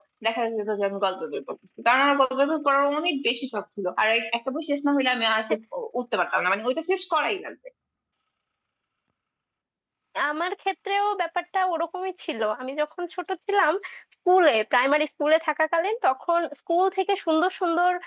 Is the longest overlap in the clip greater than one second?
No

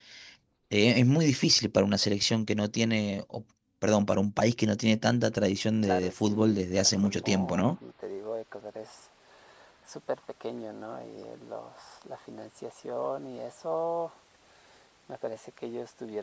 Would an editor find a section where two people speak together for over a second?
Yes, from 5.8 s

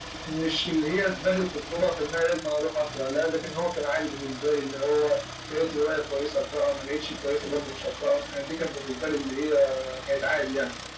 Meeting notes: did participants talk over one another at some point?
No

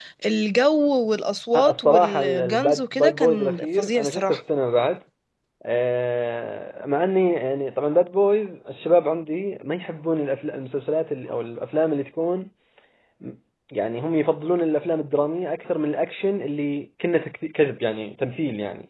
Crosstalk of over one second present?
Yes, from 1.5 s

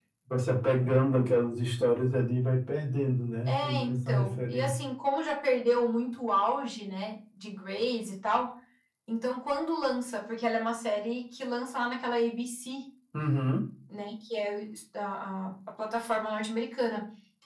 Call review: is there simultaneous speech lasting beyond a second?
Yes, from 3.5 s

